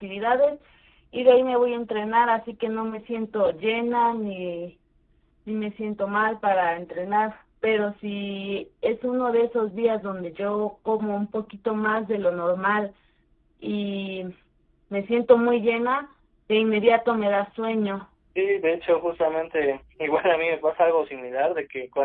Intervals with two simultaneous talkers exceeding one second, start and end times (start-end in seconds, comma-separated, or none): none